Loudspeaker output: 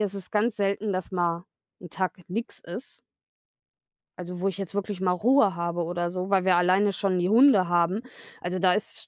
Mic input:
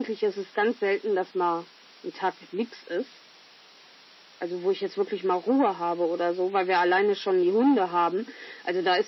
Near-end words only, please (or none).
none